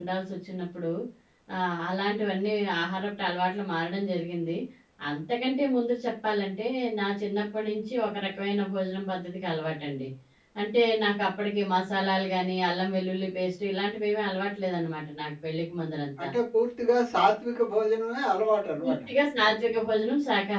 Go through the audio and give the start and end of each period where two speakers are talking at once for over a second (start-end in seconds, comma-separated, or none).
none